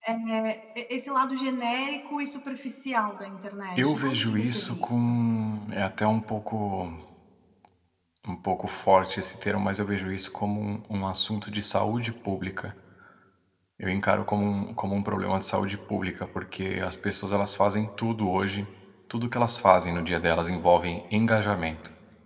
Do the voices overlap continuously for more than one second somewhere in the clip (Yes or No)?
Yes